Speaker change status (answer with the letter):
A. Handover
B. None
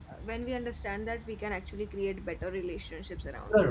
A